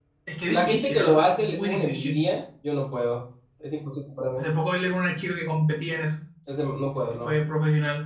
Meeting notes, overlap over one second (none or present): present